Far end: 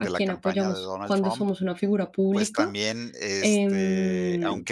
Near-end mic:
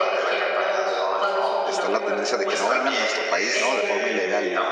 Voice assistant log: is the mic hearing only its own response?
No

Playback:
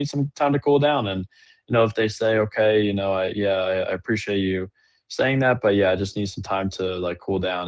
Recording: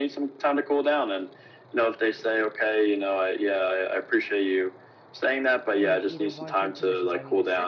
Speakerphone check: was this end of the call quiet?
No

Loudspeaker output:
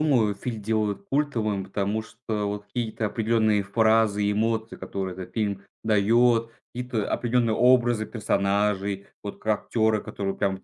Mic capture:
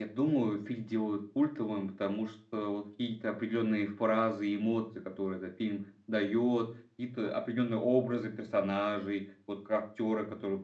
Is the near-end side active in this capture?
No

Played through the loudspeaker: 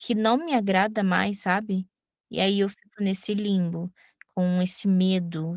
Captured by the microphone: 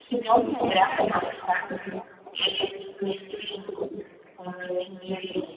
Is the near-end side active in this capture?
No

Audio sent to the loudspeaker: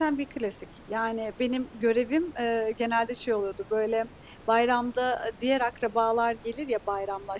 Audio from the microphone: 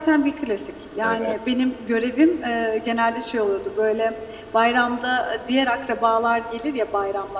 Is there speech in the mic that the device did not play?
Yes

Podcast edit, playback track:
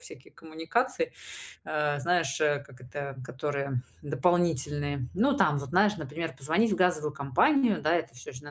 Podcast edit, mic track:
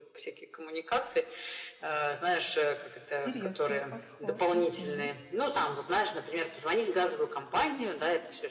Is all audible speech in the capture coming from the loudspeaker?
No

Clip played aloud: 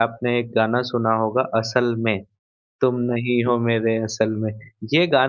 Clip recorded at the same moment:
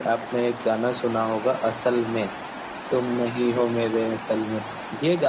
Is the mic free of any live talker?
Yes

